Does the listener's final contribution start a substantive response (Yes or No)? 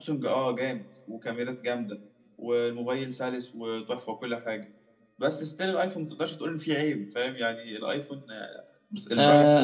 Yes